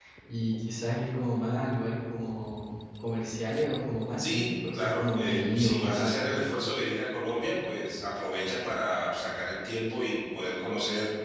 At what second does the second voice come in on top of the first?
4 s

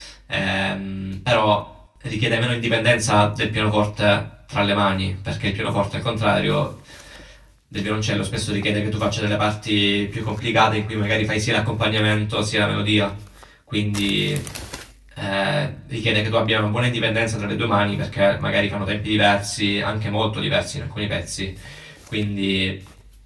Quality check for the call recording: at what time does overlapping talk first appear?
none

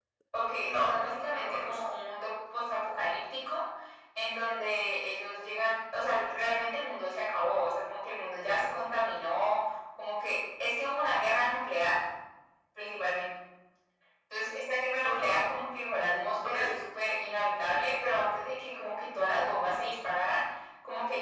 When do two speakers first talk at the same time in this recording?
1 s

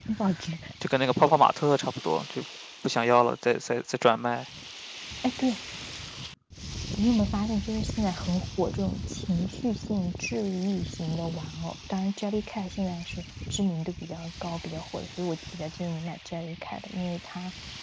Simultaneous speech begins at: none

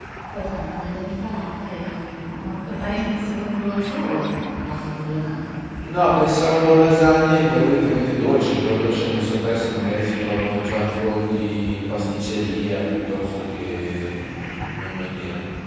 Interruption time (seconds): none

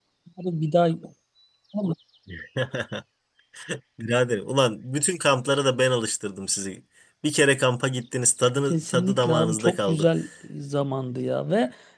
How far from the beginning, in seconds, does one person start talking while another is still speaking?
9 s

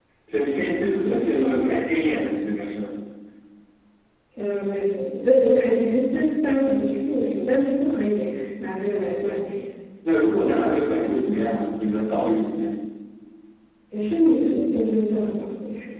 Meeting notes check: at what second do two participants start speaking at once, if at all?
none

